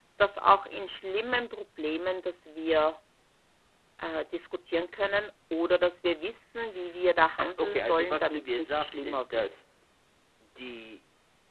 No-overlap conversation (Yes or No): No